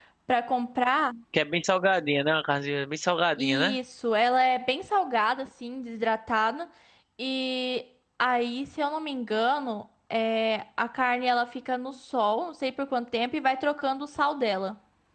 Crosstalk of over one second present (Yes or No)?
No